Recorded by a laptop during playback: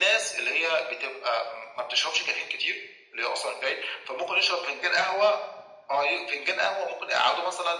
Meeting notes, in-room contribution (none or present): none